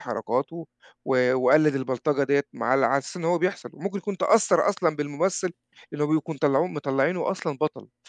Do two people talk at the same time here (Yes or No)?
No